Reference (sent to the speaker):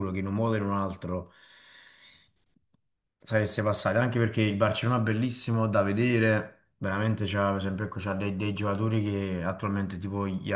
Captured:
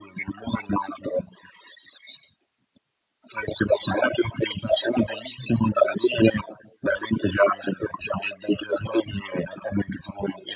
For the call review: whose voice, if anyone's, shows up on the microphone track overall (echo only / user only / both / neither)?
echo only